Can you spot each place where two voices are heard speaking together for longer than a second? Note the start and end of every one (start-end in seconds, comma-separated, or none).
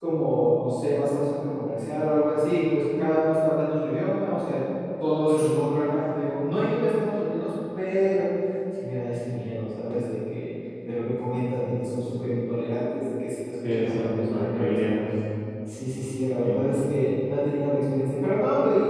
13.6-15.0